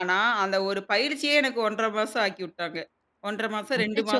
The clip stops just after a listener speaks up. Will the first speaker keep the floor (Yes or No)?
No